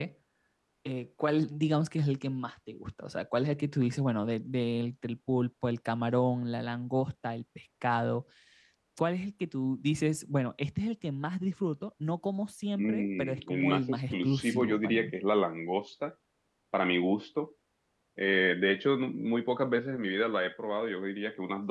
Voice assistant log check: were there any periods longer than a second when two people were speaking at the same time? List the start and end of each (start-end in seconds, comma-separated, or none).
12.8-15.1